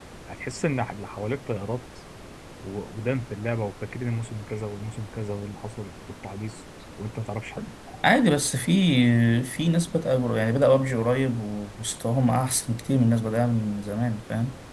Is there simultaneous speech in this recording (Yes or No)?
No